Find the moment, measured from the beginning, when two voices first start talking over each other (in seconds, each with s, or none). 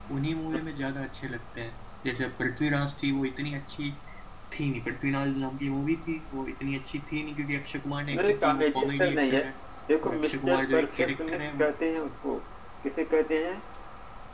8.2 s